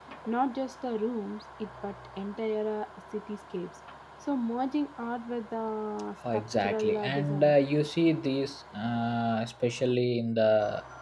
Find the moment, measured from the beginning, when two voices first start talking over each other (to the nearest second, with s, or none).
6 s